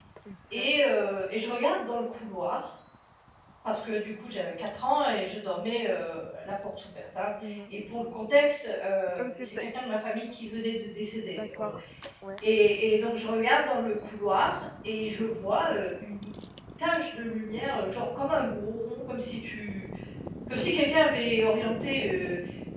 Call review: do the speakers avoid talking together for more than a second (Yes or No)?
Yes